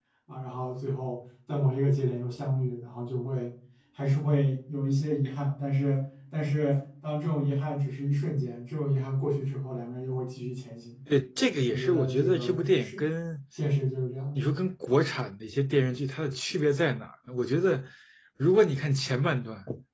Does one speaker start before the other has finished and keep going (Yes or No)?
Yes